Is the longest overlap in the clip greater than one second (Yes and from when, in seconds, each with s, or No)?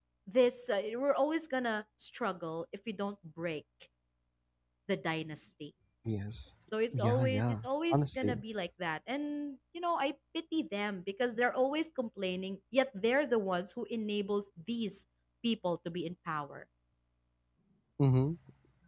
Yes, from 6.9 s